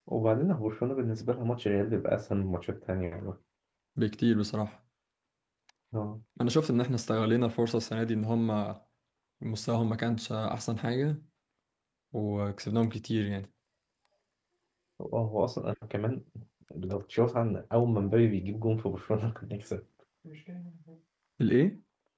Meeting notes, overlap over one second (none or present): none